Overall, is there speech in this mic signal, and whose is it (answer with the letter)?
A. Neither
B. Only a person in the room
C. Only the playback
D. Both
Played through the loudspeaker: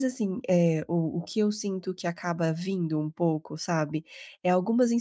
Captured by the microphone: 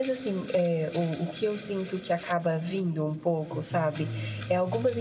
D